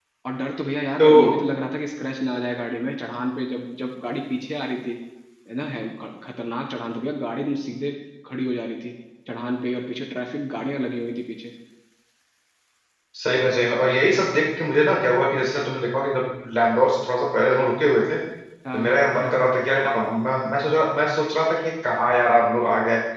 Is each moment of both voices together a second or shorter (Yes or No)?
Yes